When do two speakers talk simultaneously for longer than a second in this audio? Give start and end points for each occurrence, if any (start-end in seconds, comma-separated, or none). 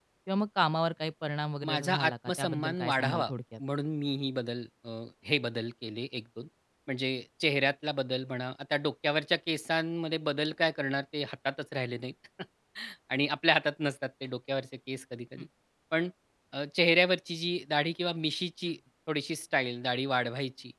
1.7-3.3